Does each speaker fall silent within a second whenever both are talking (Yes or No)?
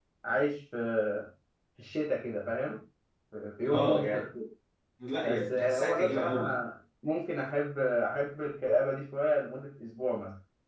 No